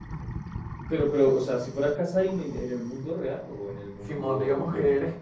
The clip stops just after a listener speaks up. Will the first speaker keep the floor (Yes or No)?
No